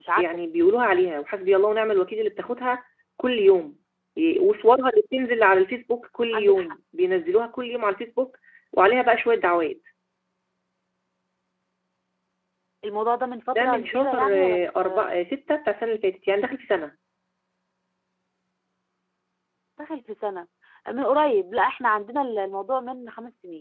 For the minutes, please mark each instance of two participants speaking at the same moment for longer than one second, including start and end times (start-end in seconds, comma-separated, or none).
13.6-15.1